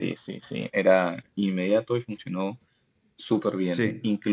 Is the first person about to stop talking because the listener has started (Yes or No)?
Yes